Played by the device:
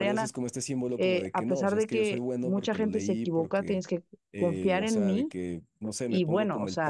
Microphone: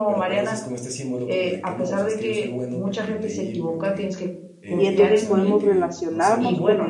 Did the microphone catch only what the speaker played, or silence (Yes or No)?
No